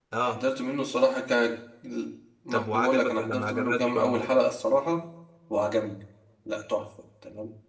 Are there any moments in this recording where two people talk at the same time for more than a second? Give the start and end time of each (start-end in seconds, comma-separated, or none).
2.5-4.2